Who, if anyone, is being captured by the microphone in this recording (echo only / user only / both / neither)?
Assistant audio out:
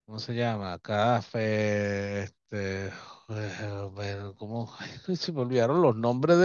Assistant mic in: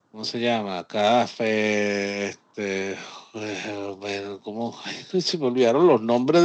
echo only